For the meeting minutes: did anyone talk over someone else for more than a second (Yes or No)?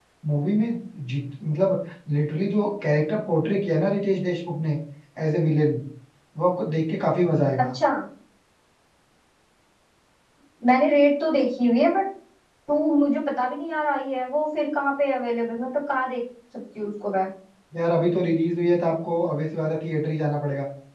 No